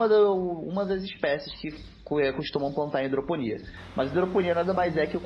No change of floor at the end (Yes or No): Yes